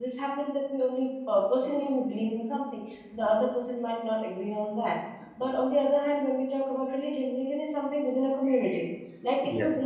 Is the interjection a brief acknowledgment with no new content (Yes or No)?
Yes